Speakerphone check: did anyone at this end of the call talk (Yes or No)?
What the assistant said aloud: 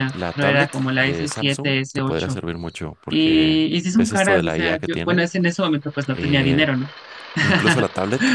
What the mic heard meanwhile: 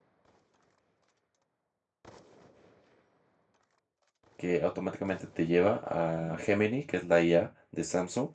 Yes